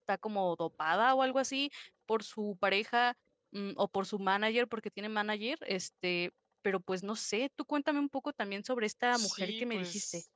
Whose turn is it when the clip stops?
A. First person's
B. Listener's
B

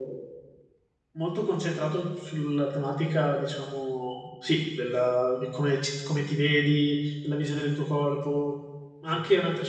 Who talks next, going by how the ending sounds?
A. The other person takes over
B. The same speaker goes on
B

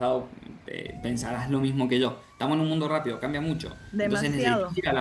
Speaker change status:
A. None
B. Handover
B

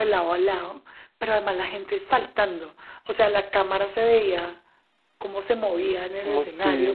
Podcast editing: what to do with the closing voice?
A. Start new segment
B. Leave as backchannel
B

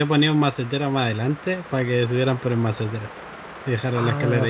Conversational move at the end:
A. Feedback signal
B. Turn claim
B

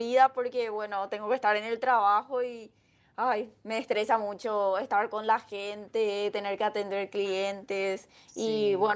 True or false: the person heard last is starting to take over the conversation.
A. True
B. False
B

